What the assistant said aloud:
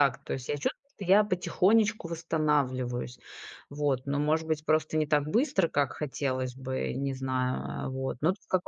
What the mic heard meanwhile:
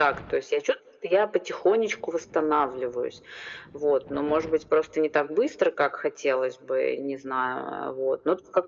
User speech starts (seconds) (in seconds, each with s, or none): none